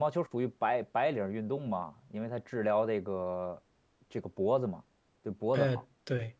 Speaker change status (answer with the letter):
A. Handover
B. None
A